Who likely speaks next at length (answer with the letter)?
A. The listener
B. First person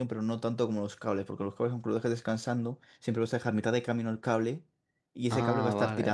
A